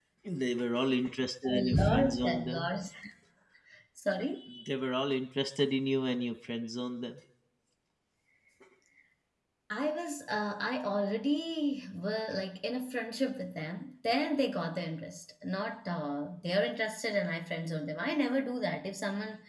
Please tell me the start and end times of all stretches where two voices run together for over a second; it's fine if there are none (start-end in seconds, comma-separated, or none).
1.5-2.7